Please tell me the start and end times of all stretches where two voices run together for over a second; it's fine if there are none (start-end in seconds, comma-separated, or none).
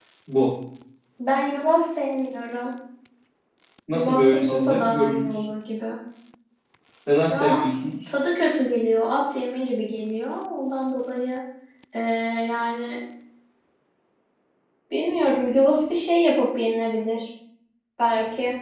3.9-5.4